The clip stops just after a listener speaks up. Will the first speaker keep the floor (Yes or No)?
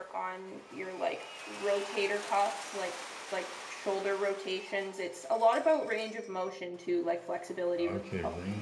No